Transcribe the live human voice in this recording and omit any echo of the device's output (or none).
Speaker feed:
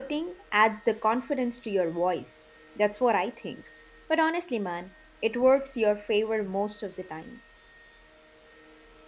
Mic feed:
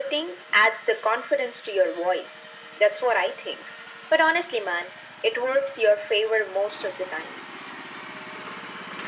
none